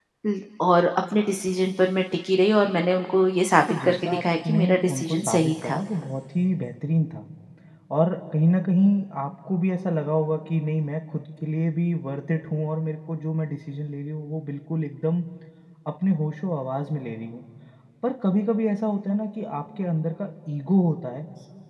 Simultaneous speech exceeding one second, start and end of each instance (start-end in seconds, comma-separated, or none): 3.7-5.8